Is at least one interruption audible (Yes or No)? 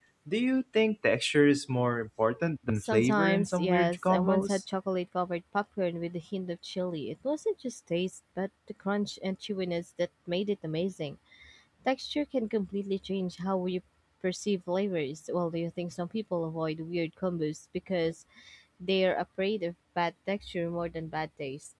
Yes